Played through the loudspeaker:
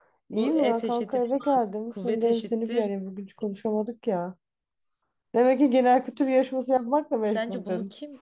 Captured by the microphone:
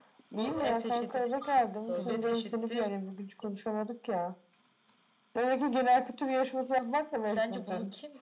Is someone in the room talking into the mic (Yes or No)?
Yes